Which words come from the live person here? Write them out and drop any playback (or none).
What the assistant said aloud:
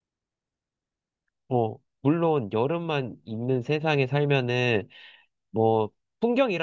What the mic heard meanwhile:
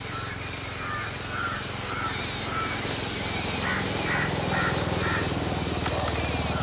none